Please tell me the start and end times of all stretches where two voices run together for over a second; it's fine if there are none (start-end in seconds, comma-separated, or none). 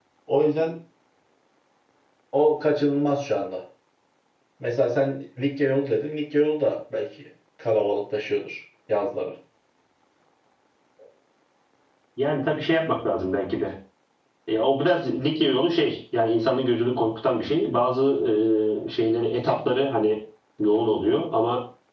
none